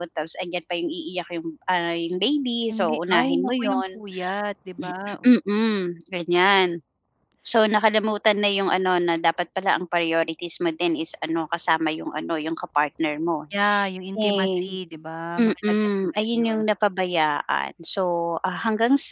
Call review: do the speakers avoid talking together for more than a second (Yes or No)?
No